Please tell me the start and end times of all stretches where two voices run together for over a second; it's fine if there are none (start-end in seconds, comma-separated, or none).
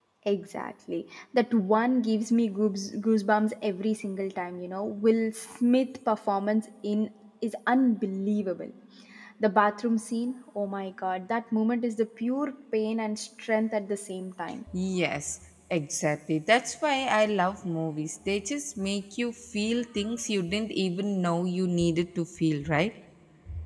none